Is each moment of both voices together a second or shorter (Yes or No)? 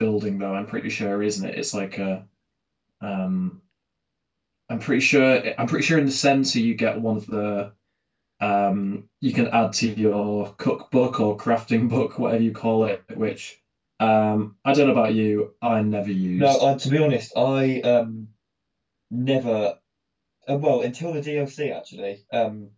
Yes